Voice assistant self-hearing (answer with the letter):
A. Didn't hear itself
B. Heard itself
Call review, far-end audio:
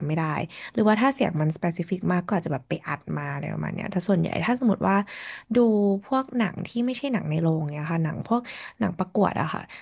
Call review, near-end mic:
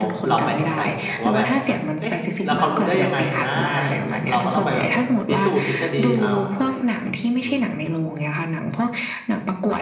B